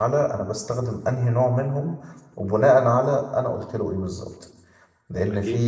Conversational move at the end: listening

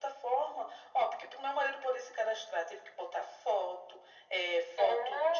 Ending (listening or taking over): listening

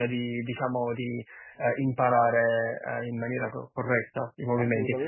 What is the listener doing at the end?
listening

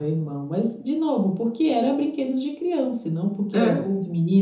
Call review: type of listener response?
listening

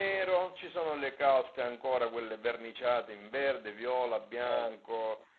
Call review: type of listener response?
listening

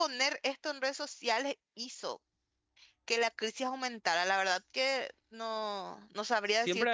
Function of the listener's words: taking over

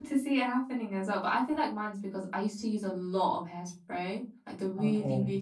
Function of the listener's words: listening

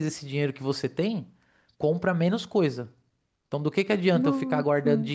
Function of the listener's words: listening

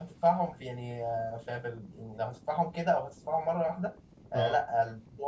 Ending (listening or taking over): listening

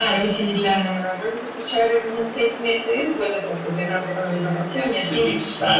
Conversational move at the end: taking over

